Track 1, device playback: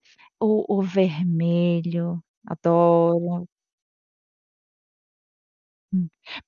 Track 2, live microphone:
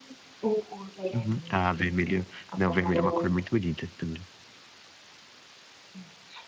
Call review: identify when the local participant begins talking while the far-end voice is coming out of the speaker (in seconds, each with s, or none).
1.1 s